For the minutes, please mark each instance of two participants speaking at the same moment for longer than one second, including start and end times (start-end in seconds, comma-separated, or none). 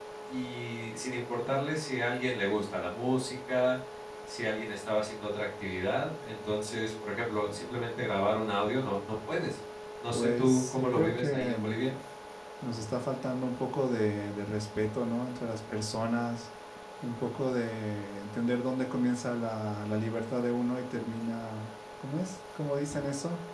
10.1-11.6